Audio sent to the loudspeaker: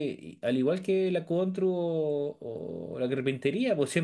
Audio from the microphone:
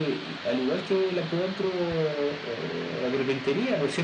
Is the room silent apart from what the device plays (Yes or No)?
Yes